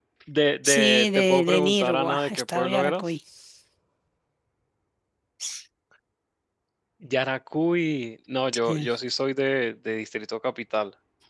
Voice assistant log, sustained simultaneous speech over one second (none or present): present